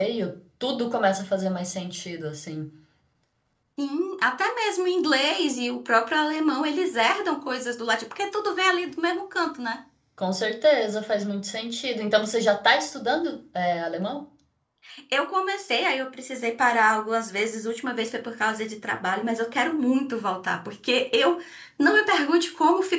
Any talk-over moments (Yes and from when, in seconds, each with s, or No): No